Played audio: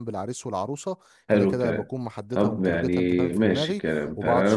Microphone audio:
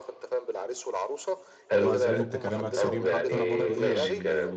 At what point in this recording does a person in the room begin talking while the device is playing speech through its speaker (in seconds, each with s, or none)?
1.7 s